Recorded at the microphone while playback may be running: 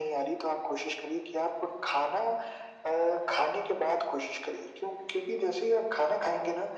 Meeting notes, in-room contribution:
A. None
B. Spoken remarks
A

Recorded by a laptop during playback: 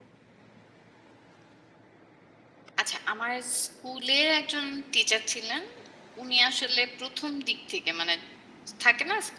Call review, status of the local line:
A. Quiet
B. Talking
B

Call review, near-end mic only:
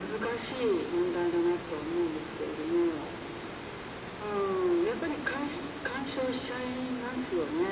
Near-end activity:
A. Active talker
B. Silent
B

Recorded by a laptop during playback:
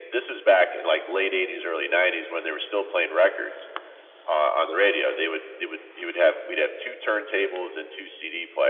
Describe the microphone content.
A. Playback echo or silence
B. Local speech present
A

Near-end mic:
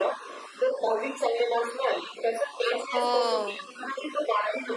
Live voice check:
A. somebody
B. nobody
A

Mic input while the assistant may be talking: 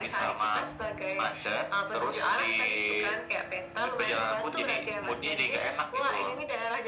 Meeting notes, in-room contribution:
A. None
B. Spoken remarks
A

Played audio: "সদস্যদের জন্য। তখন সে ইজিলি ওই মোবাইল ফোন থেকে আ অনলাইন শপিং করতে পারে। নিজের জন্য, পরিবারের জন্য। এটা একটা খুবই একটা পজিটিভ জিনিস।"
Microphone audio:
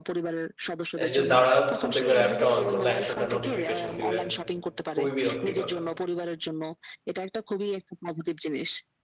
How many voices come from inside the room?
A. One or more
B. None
A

